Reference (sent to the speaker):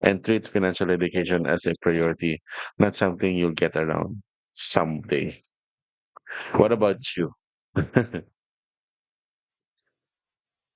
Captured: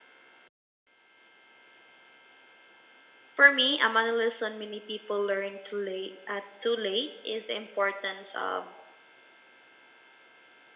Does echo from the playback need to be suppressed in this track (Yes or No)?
No